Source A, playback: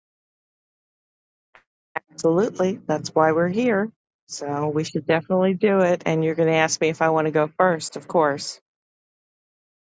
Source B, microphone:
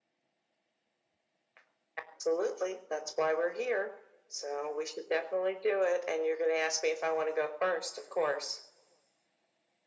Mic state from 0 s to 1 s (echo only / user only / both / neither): neither